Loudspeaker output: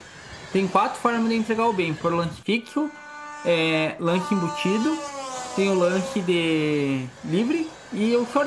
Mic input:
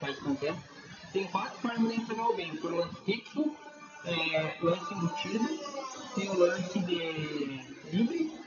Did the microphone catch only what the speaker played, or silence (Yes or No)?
Yes